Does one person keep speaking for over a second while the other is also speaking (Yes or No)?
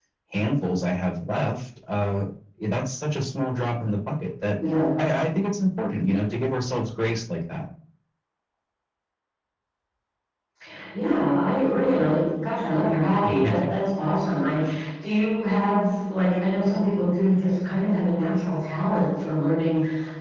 No